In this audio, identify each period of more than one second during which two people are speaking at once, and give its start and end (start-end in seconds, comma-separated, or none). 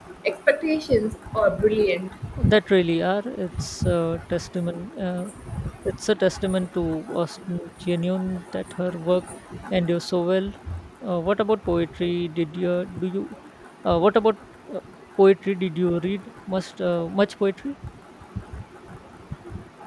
none